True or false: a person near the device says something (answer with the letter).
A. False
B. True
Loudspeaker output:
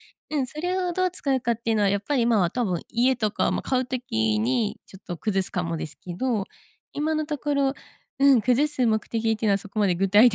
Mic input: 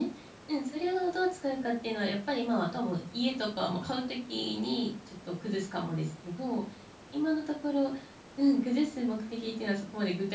A